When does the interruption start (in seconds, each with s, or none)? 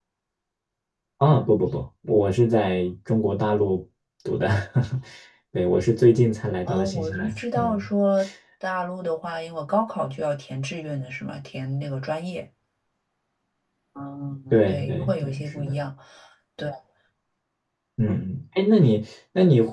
6.7 s